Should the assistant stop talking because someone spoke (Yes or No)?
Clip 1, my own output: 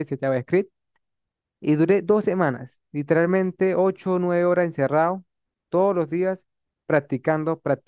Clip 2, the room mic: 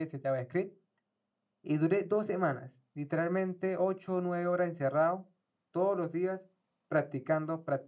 No